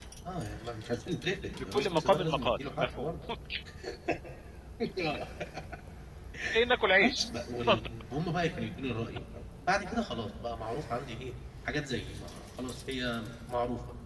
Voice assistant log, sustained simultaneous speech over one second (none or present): present